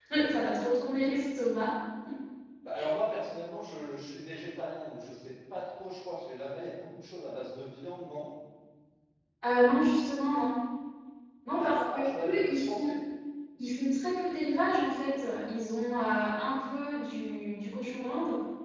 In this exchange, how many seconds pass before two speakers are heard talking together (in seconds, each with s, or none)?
11.5 s